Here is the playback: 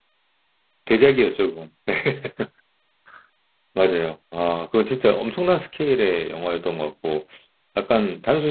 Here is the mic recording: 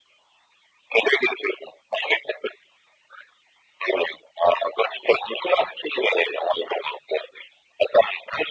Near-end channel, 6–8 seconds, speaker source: echo only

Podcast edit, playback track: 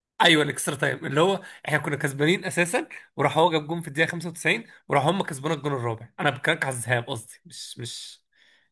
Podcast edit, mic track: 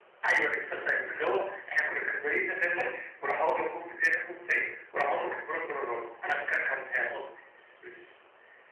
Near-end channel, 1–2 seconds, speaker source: echo only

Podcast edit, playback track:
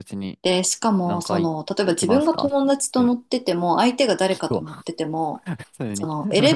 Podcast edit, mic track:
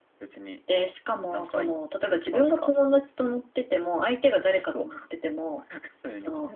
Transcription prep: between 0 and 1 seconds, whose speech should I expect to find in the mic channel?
echo only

